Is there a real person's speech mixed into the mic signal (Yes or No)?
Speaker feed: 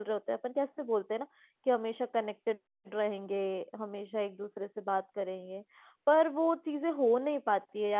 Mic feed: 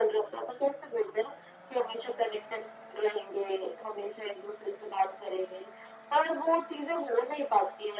No